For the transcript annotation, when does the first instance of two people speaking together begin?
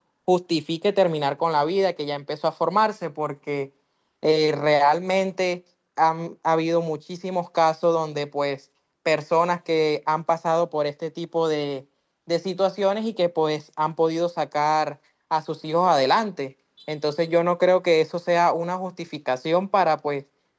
none

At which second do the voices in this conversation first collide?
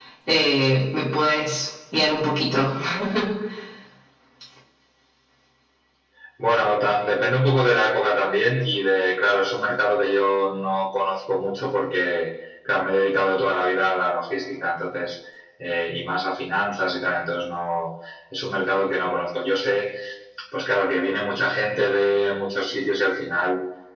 none

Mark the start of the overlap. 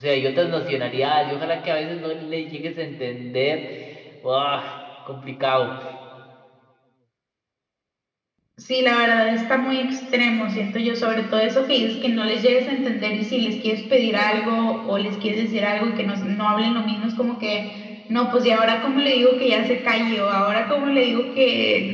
none

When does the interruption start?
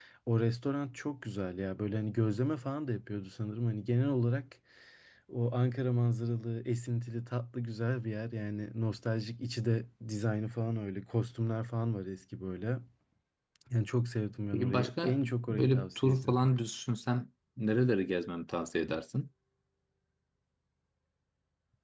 14.5 s

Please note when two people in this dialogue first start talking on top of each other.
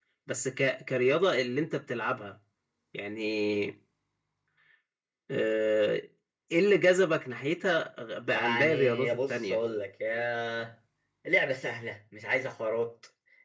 8.3 s

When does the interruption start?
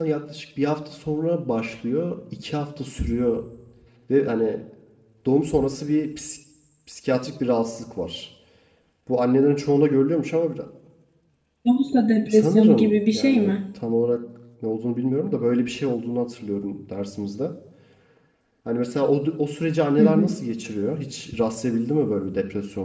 12.3 s

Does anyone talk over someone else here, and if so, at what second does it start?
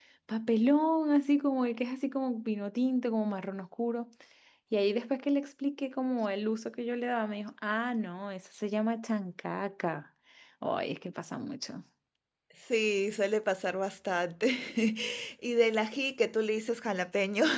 none

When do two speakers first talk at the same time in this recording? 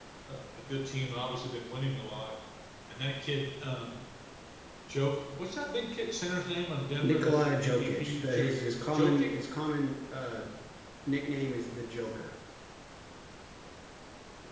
7.0 s

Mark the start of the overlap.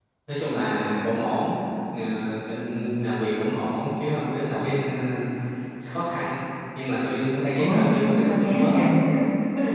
7.6 s

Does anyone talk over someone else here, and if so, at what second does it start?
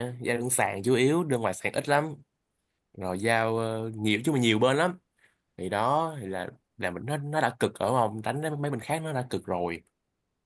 none

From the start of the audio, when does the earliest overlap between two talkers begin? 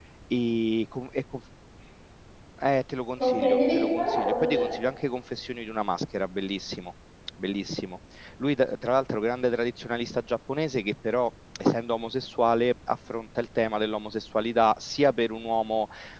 3.2 s

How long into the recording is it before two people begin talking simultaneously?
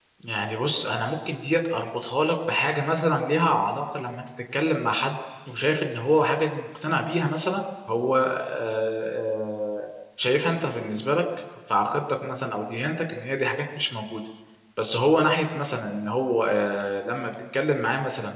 none

